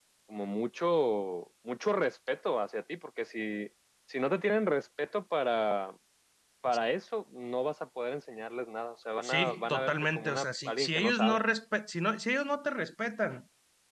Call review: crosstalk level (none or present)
present